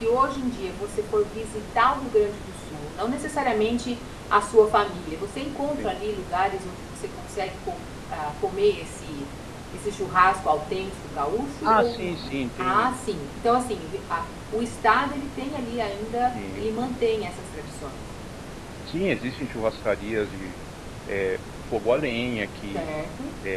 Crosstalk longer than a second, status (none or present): present